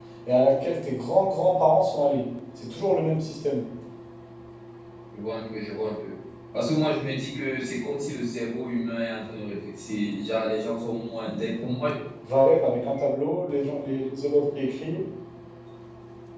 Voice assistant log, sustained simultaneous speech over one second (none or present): none